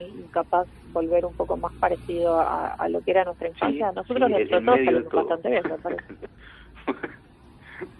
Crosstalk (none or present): present